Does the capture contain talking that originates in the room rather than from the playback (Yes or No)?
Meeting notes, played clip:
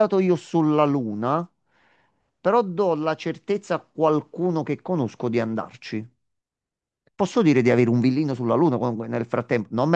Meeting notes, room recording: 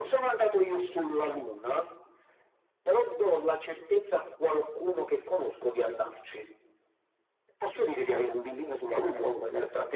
No